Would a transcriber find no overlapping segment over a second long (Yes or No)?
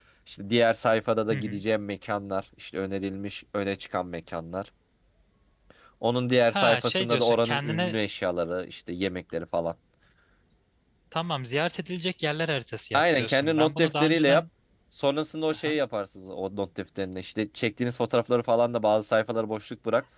No